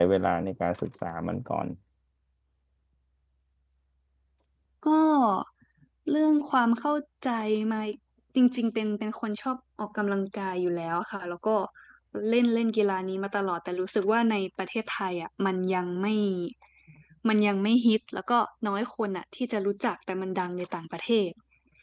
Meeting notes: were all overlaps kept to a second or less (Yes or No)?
Yes